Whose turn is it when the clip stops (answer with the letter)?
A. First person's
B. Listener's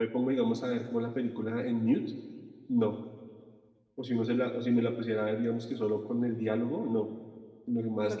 A